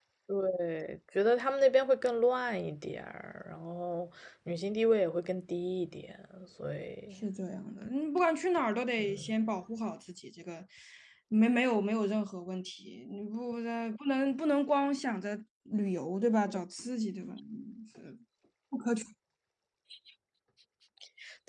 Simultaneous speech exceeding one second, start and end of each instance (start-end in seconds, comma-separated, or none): none